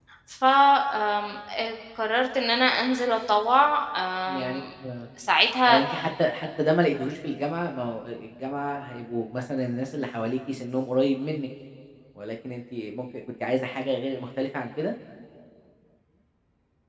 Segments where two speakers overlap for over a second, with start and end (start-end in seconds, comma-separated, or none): none